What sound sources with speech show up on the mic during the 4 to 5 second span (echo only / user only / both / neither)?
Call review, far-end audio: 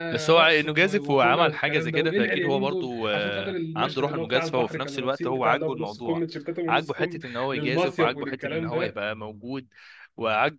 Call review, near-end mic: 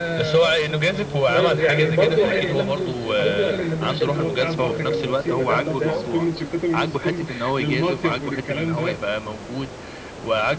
both